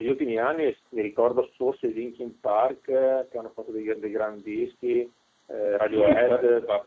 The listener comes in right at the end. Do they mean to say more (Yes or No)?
Yes